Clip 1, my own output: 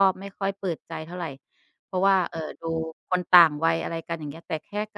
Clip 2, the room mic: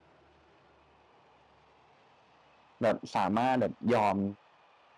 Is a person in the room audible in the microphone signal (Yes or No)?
Yes